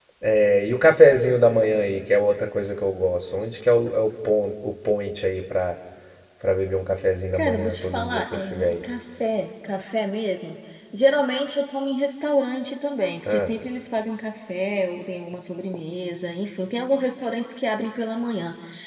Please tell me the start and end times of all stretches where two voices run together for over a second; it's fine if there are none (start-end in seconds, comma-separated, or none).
7.3-8.7